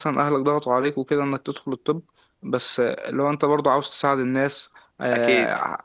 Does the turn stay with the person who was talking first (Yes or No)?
Yes